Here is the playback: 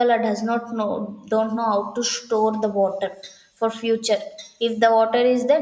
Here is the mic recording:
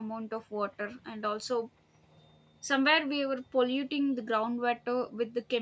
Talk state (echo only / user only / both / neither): user only